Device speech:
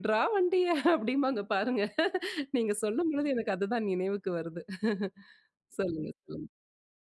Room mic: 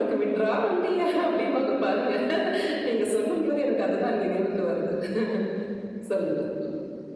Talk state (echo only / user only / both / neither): echo only